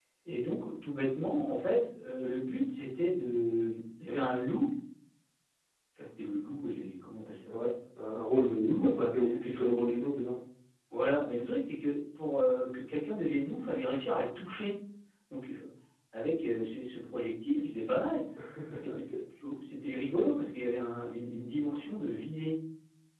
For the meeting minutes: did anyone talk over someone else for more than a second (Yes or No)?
Yes